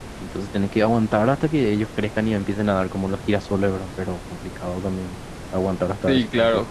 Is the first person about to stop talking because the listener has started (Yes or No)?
Yes